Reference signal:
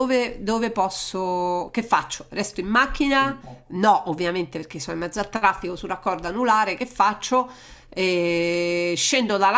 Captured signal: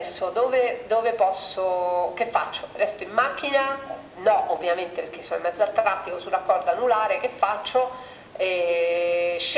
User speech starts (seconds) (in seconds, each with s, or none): none